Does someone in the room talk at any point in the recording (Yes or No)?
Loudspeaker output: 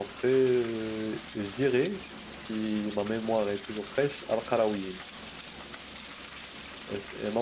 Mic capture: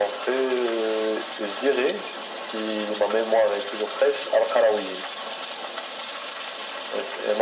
No